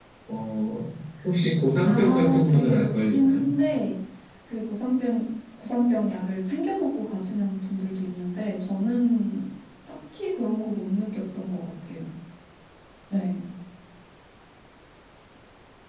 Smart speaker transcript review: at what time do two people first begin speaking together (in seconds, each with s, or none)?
1.9 s